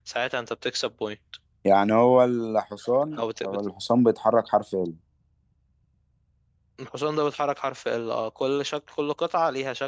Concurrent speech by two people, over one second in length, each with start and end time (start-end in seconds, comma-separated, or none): none